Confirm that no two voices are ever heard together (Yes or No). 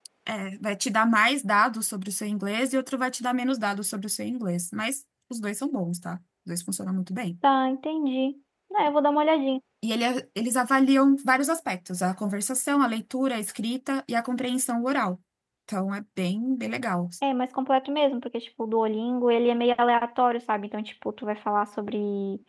Yes